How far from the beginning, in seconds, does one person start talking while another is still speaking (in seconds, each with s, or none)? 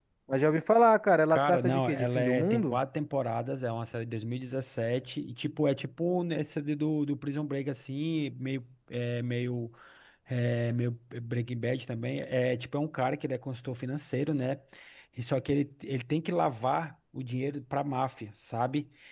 1.3 s